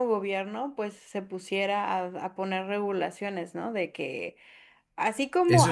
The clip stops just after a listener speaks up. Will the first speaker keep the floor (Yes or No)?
Yes